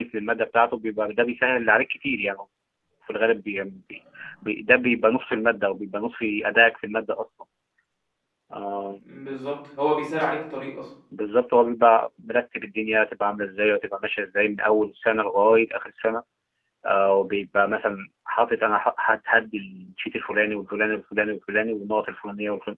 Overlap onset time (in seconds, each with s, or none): none